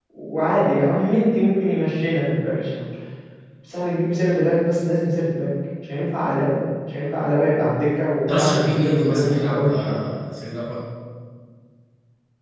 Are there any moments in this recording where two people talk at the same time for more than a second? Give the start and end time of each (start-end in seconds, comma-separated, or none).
8.3-10.0